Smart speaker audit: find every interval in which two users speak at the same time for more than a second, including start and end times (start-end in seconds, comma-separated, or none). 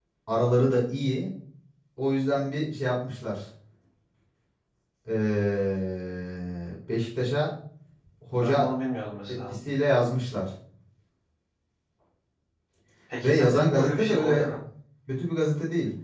13.2-14.5